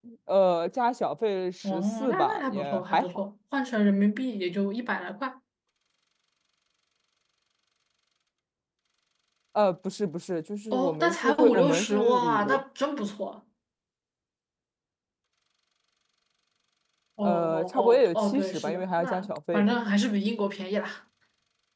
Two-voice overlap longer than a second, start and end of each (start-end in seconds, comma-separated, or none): 1.6-3.1, 10.7-12.6, 17.2-19.8